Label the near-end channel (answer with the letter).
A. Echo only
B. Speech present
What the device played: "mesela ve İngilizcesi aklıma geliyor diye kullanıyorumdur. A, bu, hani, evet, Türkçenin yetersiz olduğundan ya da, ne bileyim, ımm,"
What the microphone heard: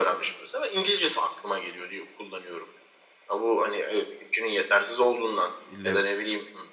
B